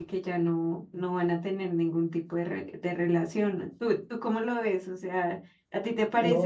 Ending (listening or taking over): taking over